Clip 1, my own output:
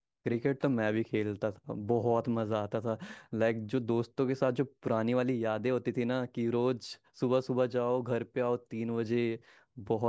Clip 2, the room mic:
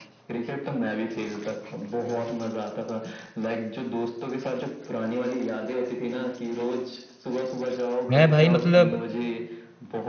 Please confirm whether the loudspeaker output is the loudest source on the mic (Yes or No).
No